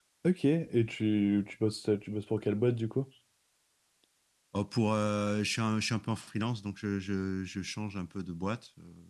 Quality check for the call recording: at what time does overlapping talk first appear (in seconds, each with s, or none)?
none